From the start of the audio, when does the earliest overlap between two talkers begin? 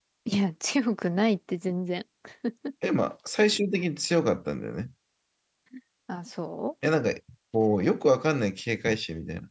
none

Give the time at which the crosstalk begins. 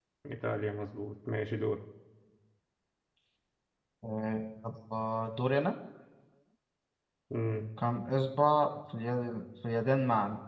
none

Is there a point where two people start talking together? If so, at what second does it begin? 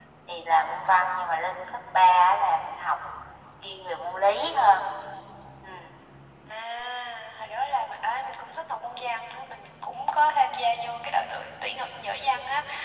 none

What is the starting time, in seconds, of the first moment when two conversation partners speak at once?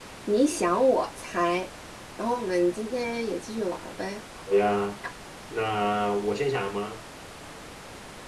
none

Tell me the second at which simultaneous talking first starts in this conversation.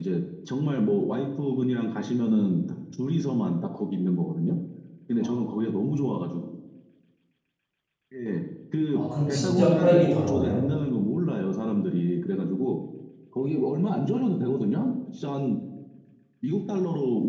8.9 s

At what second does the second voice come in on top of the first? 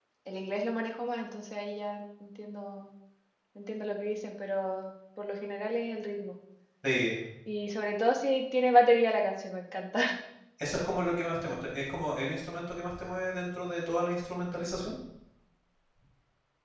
none

